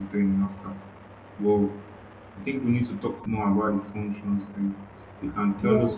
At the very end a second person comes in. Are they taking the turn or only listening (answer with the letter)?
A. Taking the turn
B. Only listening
B